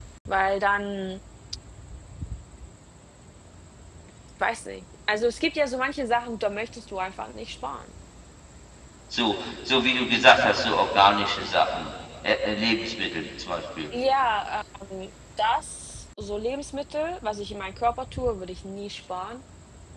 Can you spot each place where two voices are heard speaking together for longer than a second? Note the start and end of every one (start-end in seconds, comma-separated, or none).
none